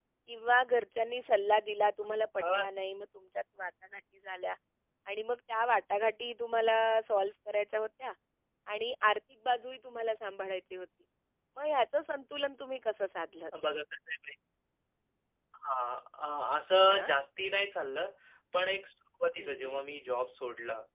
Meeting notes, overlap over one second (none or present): none